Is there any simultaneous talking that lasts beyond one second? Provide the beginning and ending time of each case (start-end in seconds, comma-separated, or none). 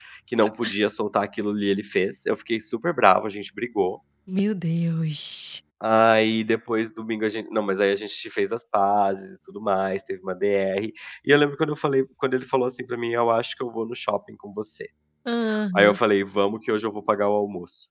none